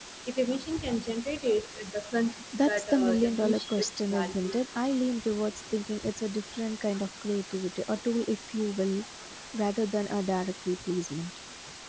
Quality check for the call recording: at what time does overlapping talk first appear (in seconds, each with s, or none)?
2.5 s